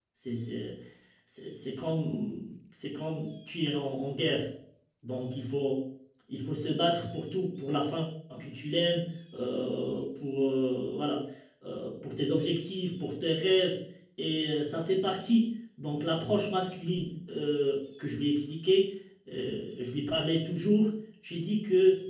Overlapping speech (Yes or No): No